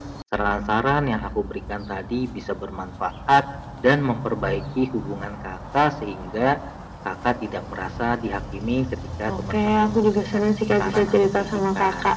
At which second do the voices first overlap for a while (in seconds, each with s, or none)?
9.3 s